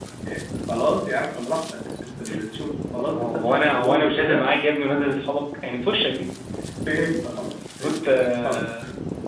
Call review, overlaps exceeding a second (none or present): present